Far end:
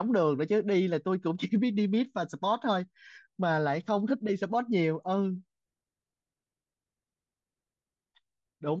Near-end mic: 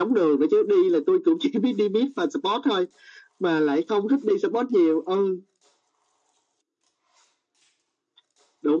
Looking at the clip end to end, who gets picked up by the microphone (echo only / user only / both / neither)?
echo only